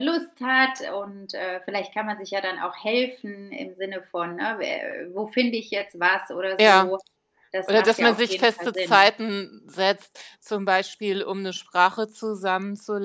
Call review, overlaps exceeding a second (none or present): present